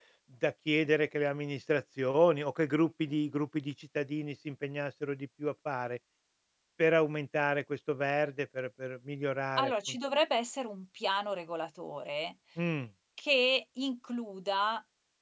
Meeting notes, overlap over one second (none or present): none